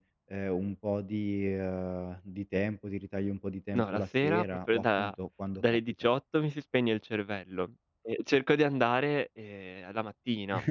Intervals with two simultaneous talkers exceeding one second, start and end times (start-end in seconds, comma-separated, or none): 3.7-5.1